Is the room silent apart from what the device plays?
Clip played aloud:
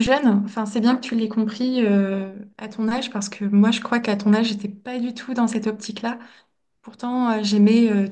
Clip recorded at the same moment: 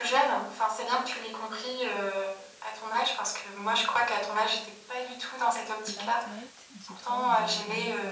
No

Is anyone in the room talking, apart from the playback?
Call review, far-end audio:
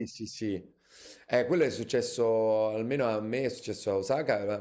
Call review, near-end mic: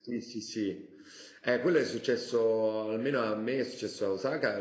No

